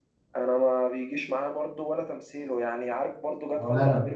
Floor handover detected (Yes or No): No